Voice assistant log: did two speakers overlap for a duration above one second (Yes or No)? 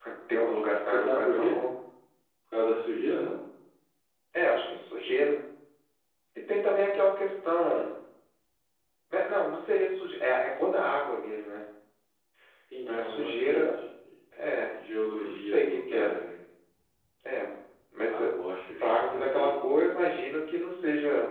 Yes